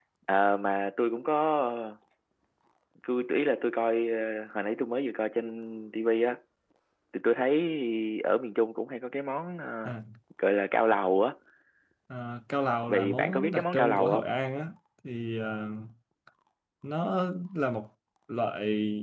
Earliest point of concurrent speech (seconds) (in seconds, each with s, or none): 12.9 s